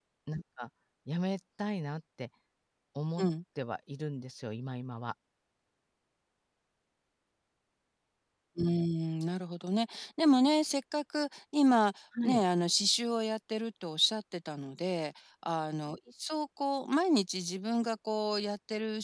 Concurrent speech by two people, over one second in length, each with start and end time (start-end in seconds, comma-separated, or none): none